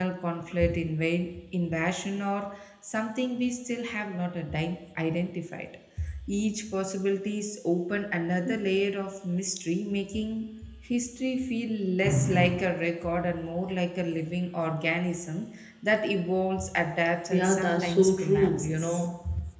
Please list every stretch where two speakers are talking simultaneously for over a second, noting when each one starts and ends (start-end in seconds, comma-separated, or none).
17.3-19.0